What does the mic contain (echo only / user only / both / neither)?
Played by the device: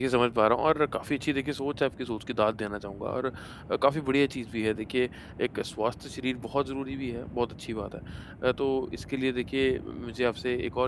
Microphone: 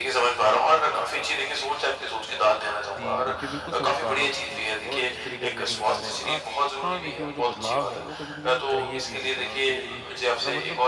both